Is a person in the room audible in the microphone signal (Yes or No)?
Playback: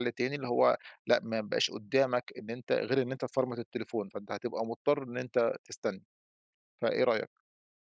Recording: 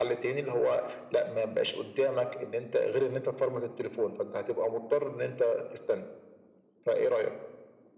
No